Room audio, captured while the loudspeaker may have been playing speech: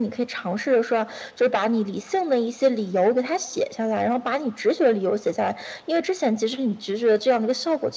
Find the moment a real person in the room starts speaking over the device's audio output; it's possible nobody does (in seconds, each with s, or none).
none